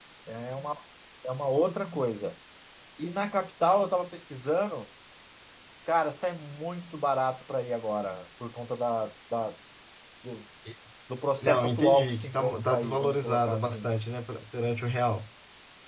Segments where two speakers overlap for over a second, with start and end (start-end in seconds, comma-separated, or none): 11.4-13.9